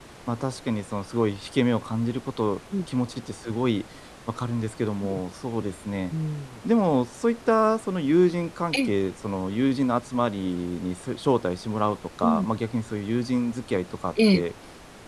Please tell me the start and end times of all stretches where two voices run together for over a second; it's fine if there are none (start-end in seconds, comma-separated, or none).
none